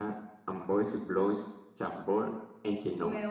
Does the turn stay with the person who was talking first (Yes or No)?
No